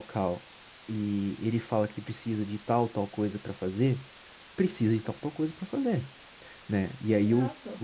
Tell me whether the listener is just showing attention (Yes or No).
No